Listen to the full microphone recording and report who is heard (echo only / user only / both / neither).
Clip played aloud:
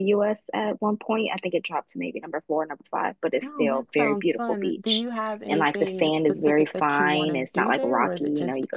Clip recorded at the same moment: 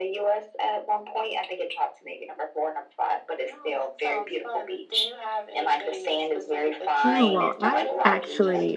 both